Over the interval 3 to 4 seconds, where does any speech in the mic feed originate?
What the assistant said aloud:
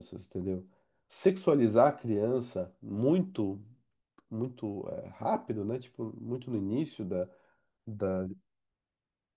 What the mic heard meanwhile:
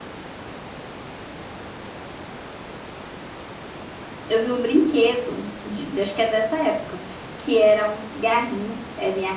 neither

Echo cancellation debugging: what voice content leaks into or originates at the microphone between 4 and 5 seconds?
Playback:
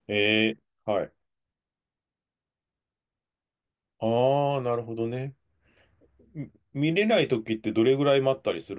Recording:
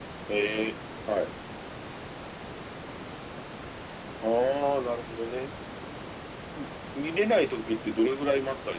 echo only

